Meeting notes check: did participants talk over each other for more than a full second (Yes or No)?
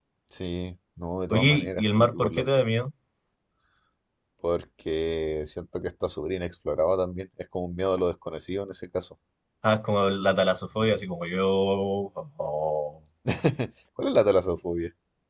Yes